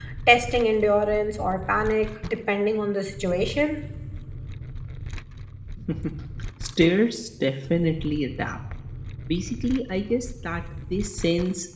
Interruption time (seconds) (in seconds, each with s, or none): none